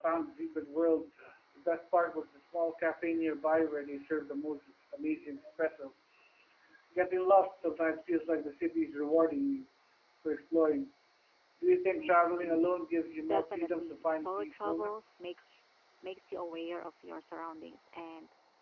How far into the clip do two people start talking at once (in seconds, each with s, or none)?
13.2 s